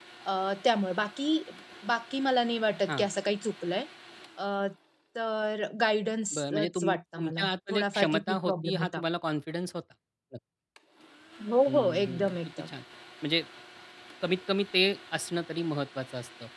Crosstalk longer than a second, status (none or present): present